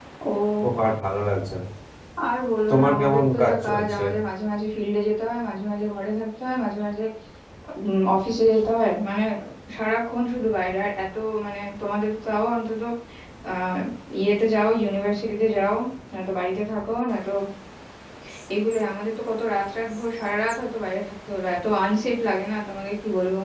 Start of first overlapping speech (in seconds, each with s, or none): 2.7 s